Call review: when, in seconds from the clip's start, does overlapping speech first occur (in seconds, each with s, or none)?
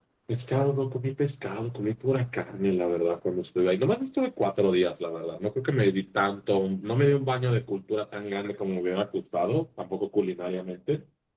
none